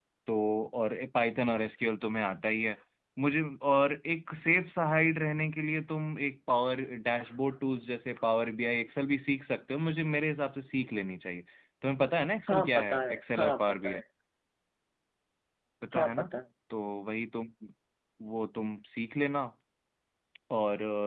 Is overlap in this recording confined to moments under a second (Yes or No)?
No